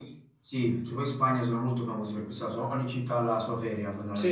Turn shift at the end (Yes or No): Yes